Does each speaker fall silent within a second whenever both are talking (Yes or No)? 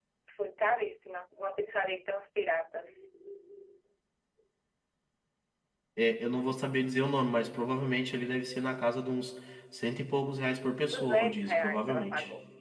No